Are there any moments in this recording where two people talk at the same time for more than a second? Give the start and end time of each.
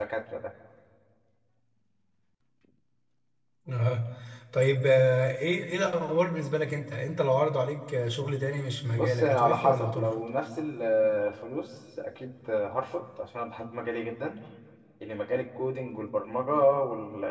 8.9-10.2

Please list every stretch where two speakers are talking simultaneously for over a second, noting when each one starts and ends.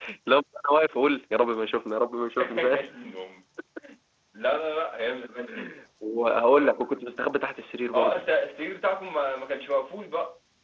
none

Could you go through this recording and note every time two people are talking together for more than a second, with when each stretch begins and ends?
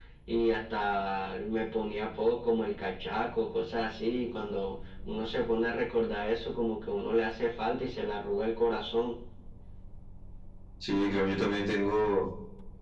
none

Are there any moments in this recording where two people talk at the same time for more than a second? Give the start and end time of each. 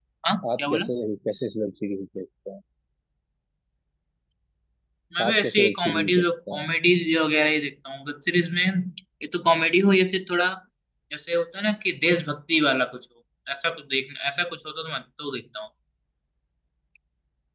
5.2-6.7

